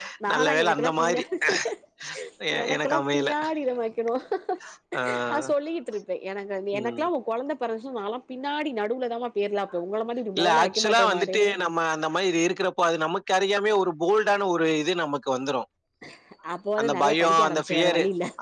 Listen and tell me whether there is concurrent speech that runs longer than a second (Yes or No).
Yes